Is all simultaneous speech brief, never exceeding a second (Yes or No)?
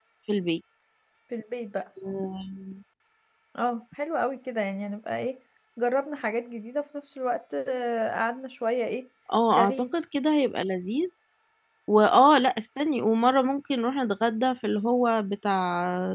Yes